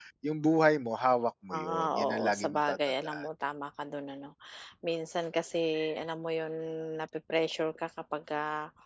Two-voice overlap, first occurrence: 1.5 s

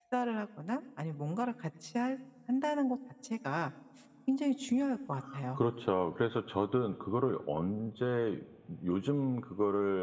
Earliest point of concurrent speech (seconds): none

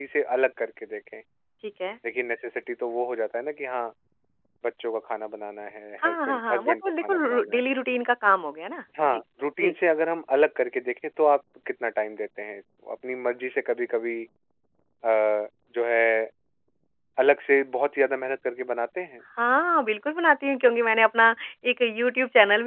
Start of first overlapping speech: 6.0 s

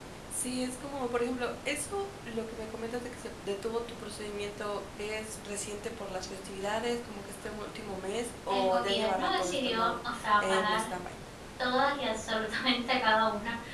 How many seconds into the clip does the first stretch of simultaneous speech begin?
8.5 s

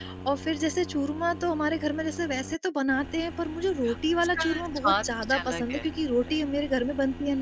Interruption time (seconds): 4.1 s

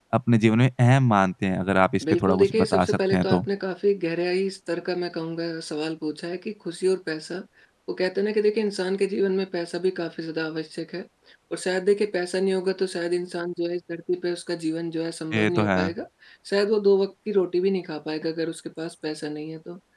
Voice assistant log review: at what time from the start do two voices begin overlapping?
2.1 s

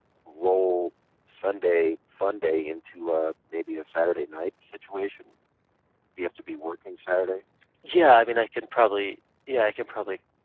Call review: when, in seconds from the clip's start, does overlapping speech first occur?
none

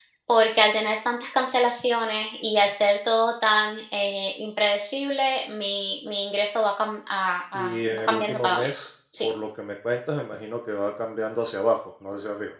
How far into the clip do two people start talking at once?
7.5 s

